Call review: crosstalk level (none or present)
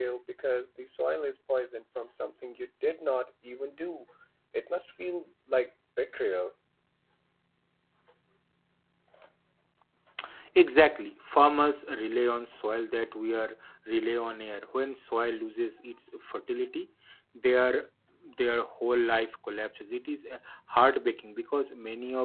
none